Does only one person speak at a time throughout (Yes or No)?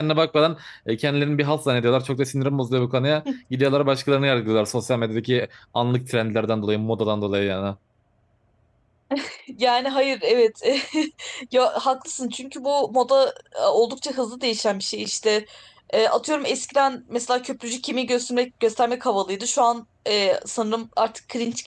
Yes